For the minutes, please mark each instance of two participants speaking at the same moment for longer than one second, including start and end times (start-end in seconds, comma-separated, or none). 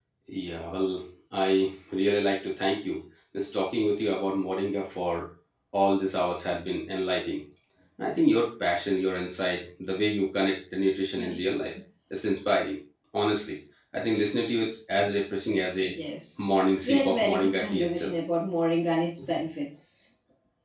16.8-18.1